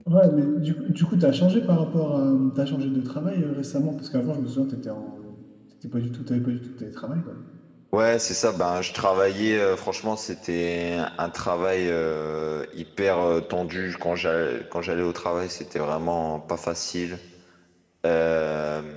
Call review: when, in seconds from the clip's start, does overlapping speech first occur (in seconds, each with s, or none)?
none